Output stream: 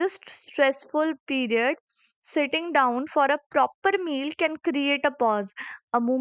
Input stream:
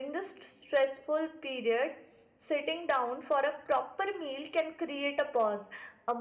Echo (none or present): present